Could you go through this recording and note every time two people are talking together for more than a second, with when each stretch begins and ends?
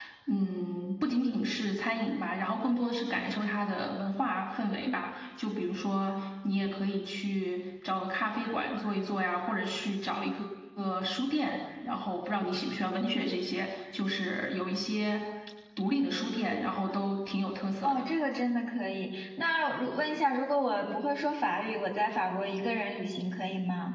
none

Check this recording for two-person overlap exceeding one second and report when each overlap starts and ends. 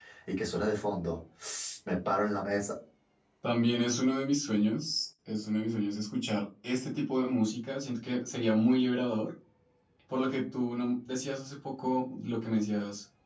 none

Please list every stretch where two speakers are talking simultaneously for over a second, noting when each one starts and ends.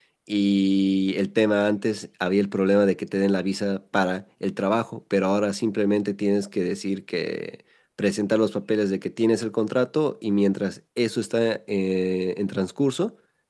none

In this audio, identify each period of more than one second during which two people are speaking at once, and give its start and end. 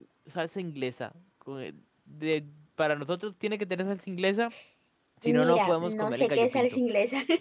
5.2-6.7

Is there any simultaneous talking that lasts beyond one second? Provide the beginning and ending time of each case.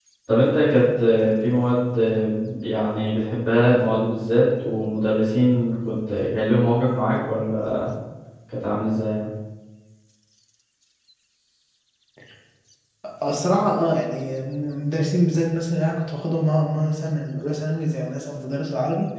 none

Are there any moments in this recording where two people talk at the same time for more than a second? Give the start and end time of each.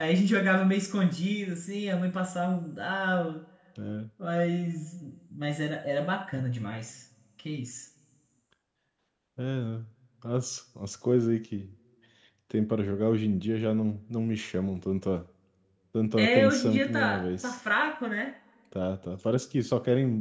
16.2-17.6

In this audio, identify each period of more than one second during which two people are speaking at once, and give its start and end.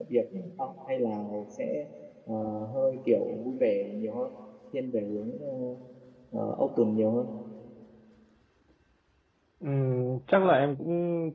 none

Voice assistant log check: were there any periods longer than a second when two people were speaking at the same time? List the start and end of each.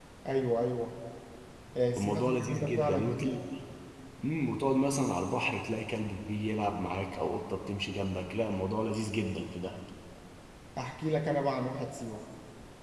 2.0-3.3

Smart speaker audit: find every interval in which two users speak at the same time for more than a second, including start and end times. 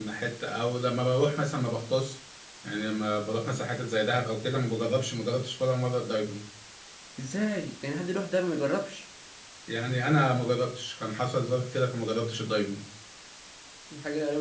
none

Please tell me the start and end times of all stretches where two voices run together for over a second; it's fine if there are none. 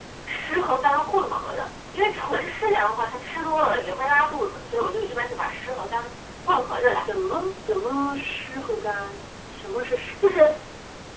none

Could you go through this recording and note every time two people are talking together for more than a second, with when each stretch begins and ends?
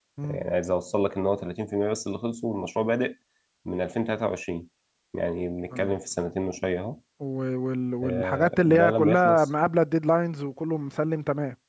8.0-9.5

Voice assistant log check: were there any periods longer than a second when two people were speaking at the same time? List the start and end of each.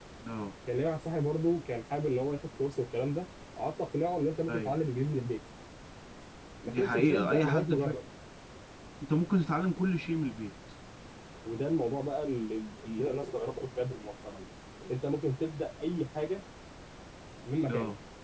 6.6-8.0

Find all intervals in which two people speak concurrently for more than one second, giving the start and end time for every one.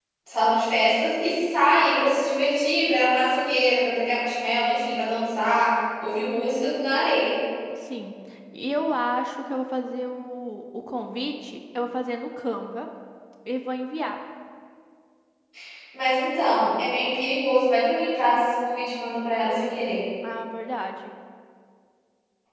none

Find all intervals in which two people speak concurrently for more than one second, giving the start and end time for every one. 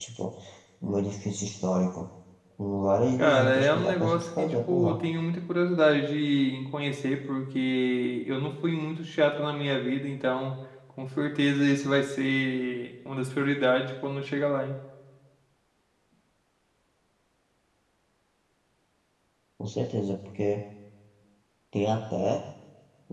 3.2-5.0

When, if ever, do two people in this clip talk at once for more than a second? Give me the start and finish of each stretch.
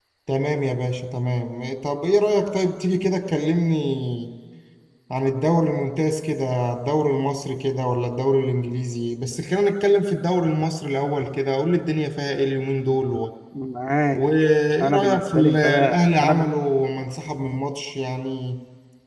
14.8-16.4

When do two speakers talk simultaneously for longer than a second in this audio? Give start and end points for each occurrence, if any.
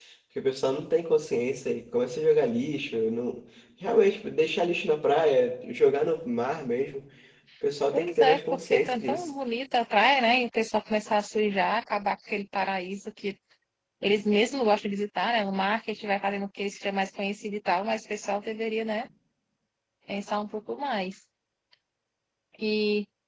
7.9-9.3

